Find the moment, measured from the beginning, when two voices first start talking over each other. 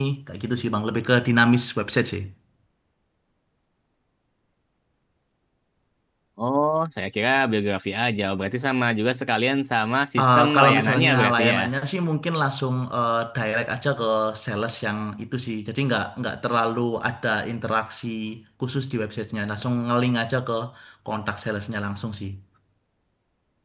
10.2 s

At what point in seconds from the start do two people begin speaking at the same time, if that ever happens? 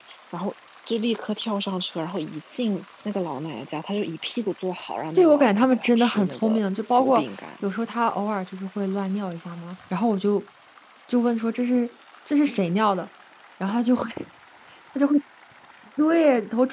5.1 s

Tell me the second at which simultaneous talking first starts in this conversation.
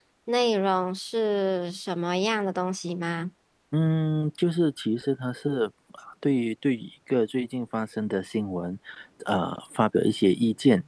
none

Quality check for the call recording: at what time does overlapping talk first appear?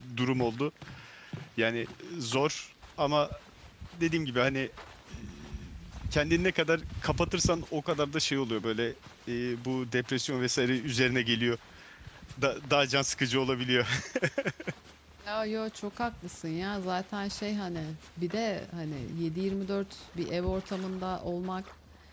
none

